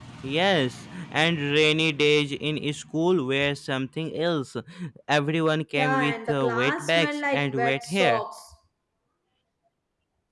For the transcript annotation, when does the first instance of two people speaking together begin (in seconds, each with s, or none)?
5.8 s